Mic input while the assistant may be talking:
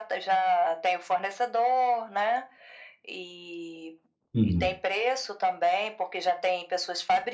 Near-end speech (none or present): present